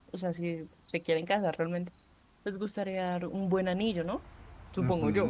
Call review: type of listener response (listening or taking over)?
taking over